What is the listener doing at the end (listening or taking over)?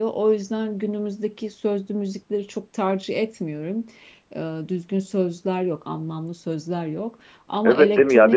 taking over